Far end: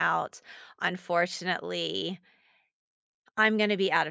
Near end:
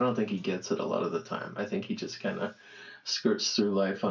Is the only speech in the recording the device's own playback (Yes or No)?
No